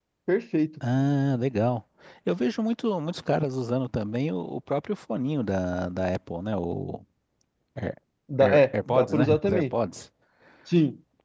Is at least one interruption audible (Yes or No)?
Yes